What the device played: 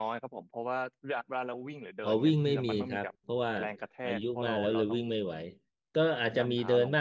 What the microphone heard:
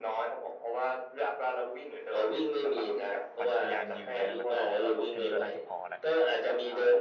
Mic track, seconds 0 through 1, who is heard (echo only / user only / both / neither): echo only